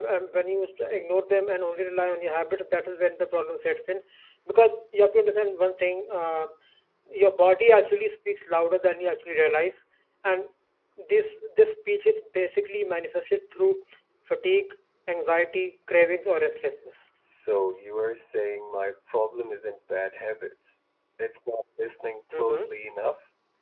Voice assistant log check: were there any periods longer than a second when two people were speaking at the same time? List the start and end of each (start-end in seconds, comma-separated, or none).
none